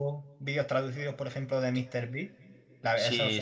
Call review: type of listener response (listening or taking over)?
taking over